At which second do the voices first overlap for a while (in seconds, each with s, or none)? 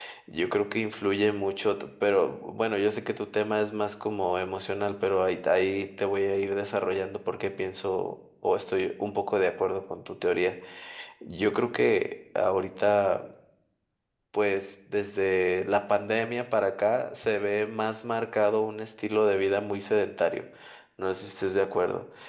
none